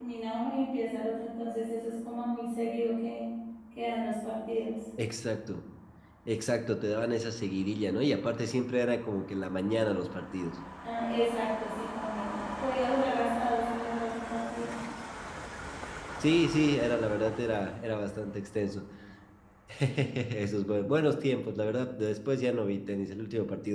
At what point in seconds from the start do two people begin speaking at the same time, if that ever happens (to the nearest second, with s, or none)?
none